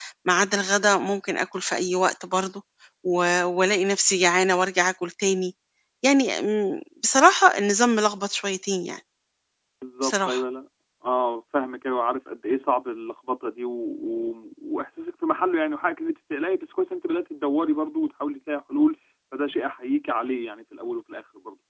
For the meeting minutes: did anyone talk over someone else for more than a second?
No

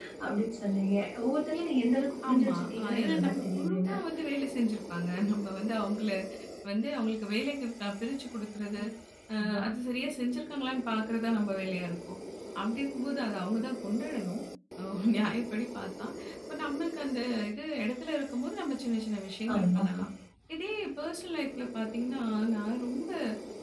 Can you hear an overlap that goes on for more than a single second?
Yes, from 2.3 s

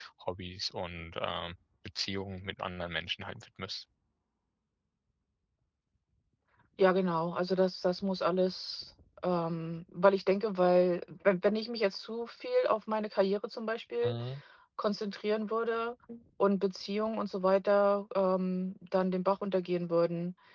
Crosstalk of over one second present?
No

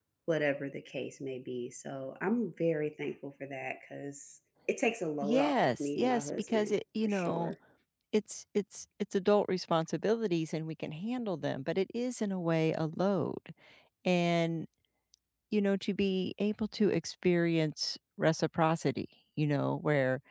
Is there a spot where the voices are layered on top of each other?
Yes, from 5.2 s

